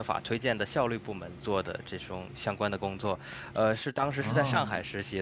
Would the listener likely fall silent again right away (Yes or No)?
Yes